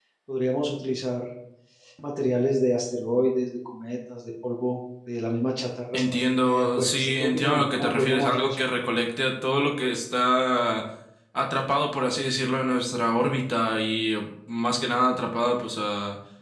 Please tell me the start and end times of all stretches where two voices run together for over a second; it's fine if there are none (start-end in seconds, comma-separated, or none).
5.9-8.6